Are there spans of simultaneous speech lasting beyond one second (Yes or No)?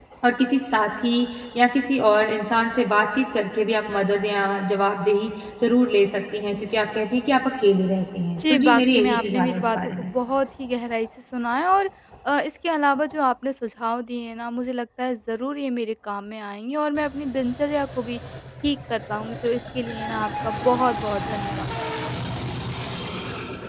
Yes